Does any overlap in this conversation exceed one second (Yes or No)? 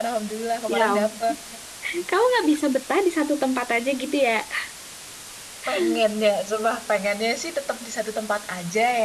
No